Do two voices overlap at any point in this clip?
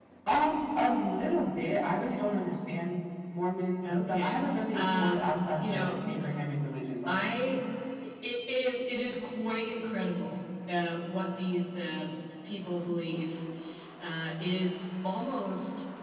Yes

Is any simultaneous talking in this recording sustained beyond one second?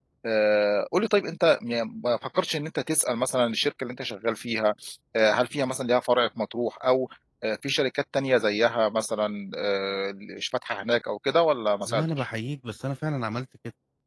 No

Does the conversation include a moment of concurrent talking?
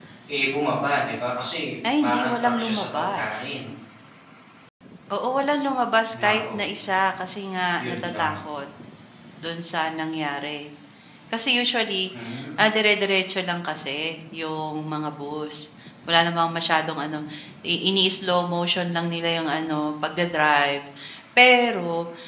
Yes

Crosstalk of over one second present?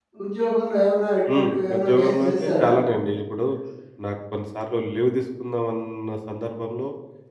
Yes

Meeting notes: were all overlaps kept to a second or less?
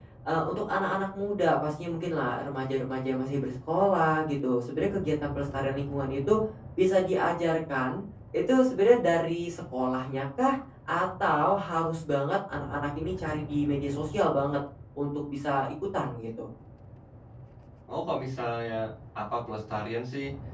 Yes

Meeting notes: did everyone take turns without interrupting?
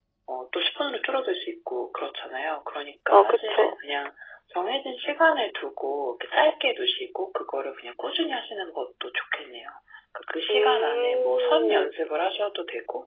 No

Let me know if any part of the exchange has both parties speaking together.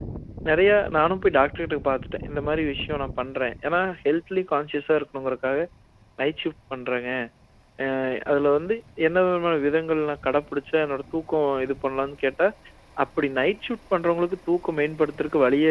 No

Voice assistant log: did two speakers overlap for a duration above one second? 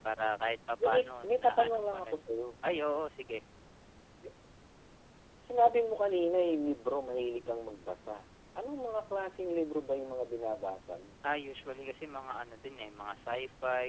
Yes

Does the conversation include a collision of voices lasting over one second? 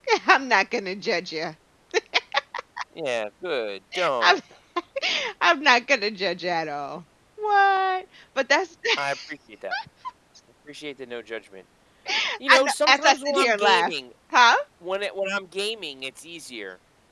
Yes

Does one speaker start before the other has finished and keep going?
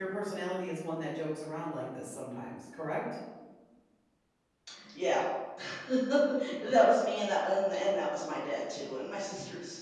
No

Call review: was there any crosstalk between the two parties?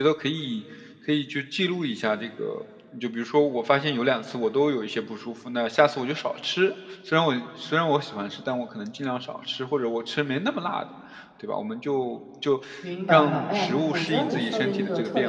Yes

